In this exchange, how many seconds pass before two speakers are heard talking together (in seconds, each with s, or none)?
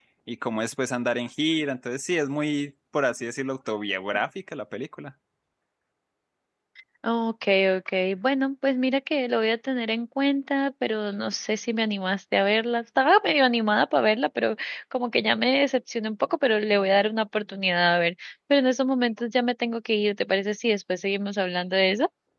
none